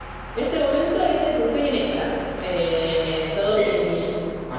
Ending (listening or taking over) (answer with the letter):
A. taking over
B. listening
A